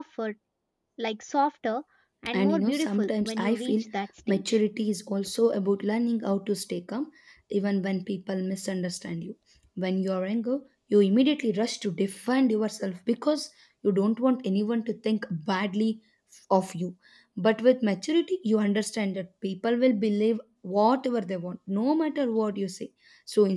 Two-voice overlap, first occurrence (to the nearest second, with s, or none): 2 s